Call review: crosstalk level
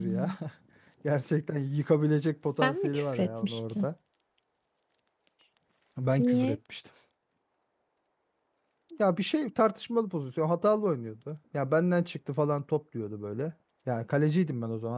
present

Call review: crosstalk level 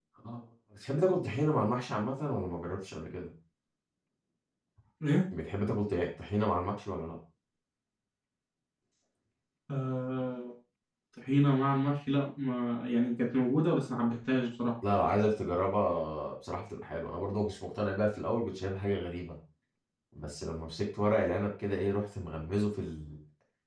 none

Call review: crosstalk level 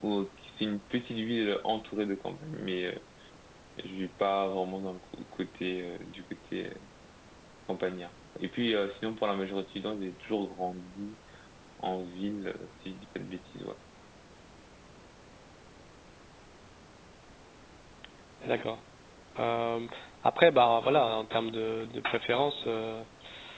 none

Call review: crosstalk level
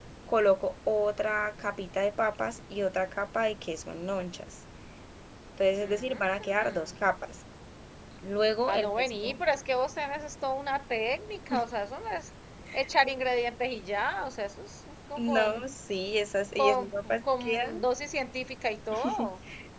present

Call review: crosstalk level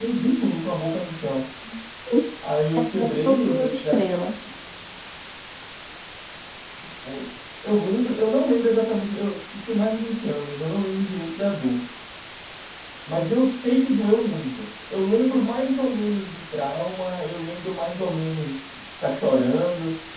present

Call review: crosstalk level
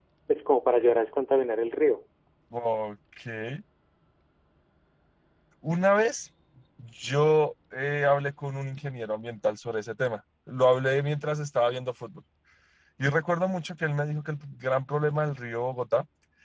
none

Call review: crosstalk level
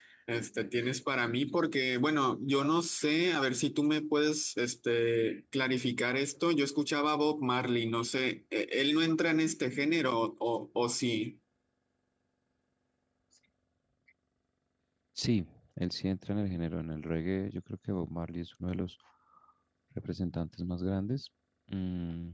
none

